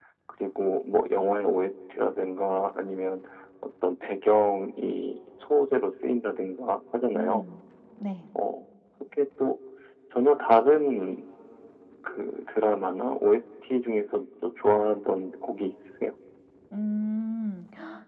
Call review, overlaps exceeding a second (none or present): none